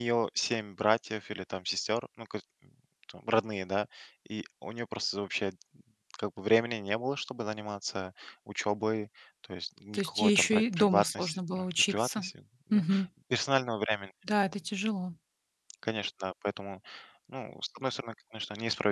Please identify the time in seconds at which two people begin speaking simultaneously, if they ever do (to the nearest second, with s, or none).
10 s